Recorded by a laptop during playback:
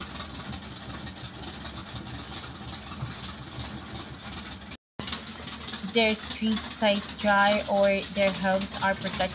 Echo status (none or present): none